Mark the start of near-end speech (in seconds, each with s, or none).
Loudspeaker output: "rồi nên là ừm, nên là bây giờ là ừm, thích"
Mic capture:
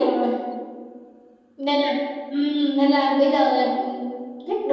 none